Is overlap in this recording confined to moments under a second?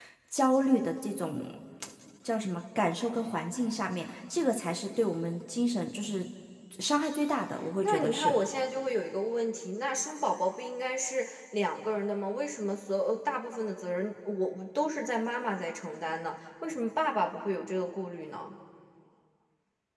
Yes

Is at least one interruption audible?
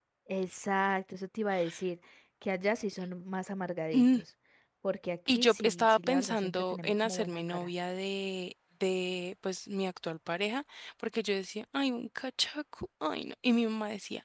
Yes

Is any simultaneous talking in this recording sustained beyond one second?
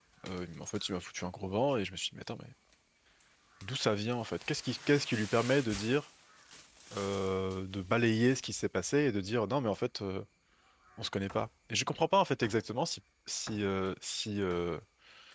No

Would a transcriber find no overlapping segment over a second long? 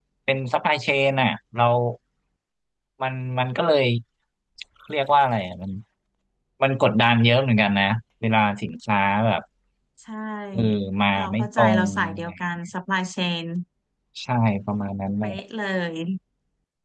No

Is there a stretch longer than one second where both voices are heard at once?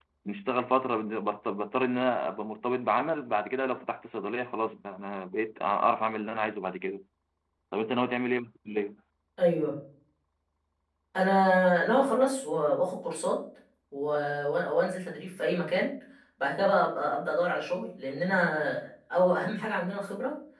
No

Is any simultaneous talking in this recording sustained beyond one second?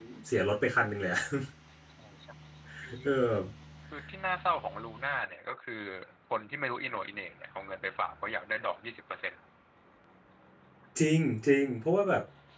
No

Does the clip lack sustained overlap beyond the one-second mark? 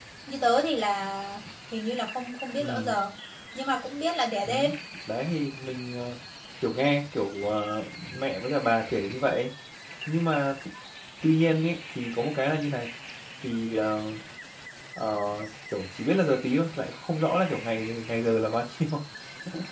Yes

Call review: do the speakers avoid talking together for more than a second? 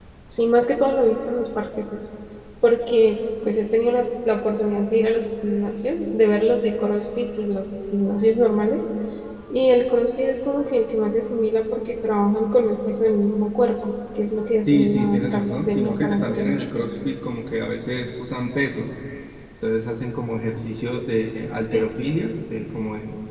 No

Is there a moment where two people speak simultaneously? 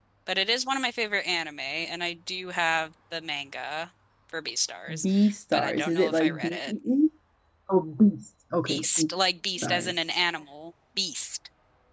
Yes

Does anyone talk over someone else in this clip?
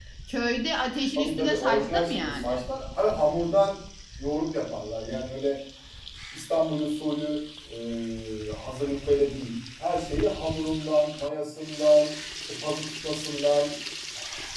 Yes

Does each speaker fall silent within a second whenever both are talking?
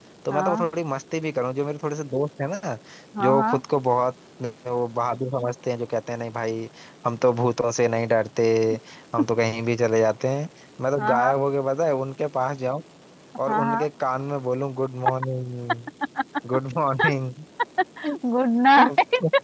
Yes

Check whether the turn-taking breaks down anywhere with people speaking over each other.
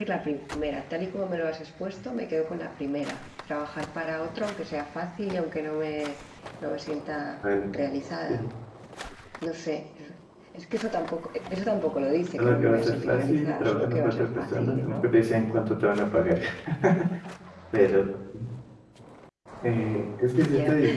Yes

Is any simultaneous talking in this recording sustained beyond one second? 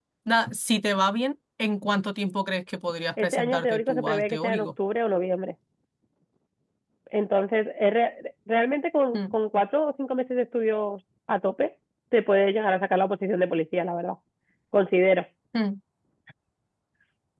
Yes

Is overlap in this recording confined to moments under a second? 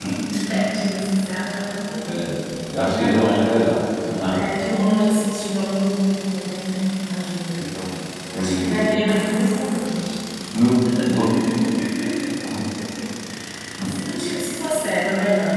Yes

